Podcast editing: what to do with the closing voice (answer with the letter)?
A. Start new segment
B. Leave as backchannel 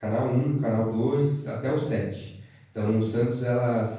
B